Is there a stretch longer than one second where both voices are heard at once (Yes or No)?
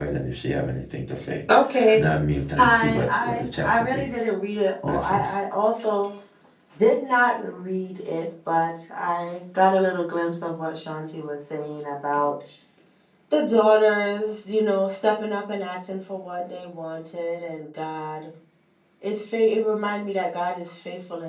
Yes